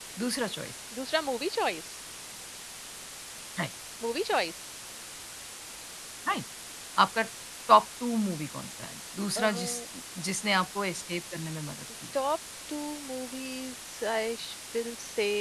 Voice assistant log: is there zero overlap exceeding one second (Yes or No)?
Yes